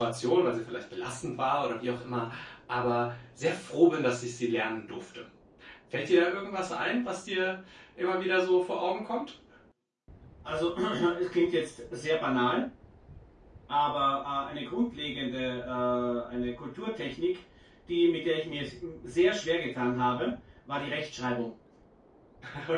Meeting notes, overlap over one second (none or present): none